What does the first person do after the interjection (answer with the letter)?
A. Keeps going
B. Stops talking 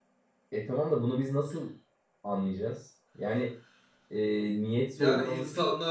B